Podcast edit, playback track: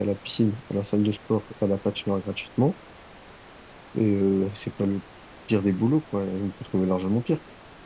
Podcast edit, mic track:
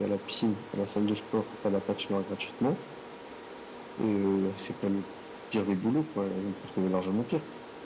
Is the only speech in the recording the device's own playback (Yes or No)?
Yes